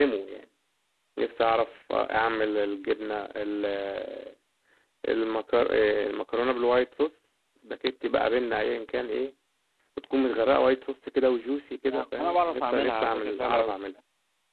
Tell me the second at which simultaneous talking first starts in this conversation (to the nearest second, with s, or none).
12 s